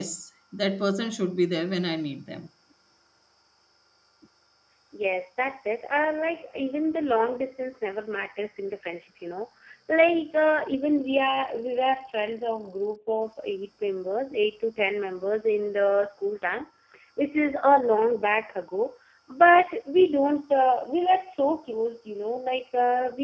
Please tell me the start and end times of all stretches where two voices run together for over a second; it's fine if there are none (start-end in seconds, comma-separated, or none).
none